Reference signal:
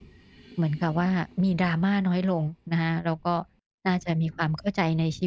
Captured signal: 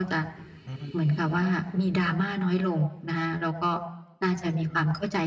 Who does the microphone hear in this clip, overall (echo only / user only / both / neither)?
both